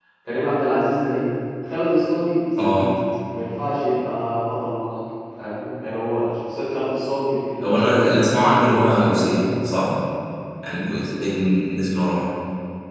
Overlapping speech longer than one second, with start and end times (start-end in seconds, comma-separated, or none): 7.6-9.6